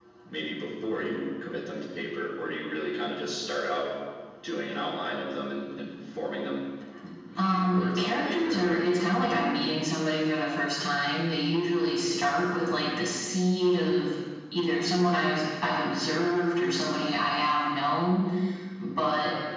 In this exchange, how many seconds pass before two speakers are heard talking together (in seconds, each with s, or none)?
7.4 s